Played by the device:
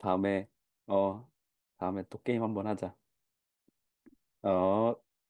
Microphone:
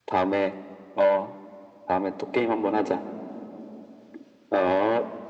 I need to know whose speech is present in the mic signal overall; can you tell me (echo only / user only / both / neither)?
echo only